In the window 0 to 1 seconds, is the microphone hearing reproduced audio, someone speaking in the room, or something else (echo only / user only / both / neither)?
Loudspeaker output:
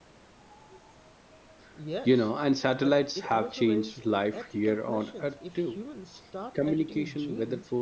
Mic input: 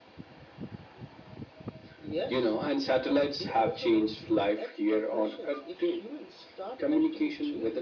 neither